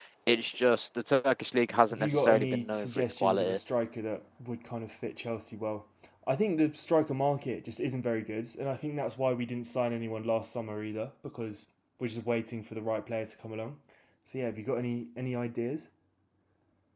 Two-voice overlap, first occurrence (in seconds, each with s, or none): 1.9 s